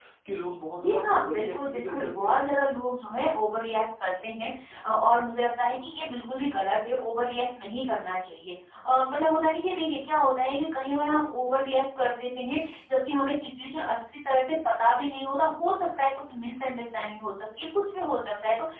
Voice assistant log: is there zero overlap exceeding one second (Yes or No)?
No